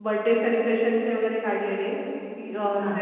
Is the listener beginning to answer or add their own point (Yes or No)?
No